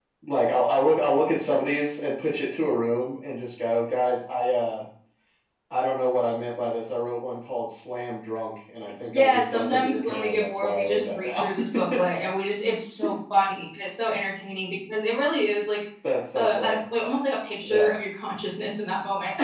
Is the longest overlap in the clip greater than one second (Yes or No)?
Yes